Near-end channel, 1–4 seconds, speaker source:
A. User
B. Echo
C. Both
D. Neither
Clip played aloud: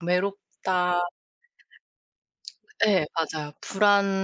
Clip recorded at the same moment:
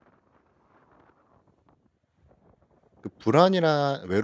A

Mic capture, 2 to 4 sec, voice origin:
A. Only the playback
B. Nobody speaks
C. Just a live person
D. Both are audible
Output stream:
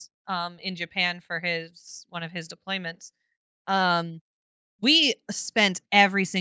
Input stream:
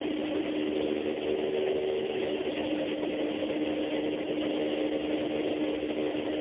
B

